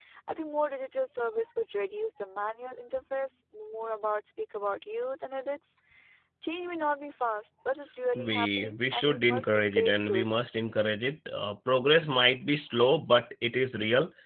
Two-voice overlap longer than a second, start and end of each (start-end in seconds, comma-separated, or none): 8.2-10.2